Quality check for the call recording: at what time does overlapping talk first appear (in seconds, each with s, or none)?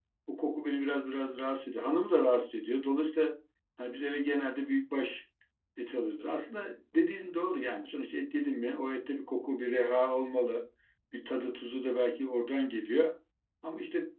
none